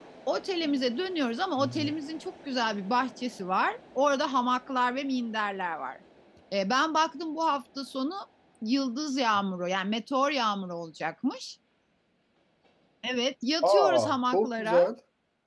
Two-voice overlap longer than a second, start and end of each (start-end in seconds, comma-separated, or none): 13.6-14.9